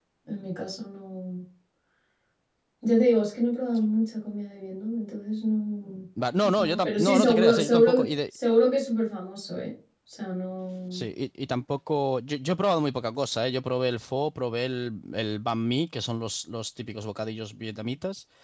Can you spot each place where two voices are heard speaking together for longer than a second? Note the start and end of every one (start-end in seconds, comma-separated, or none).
6.6-8.0